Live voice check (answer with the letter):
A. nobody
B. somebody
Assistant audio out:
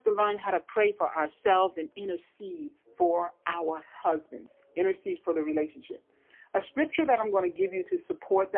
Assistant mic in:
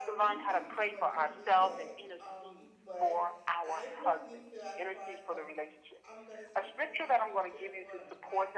B